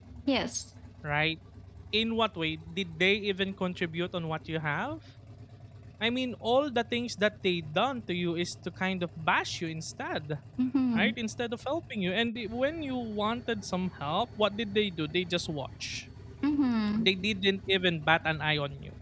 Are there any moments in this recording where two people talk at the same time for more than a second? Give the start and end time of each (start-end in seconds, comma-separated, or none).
none